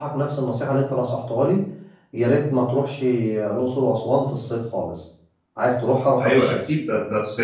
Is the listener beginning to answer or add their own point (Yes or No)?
Yes